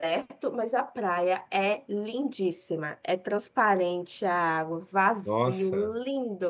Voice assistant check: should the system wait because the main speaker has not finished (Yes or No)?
Yes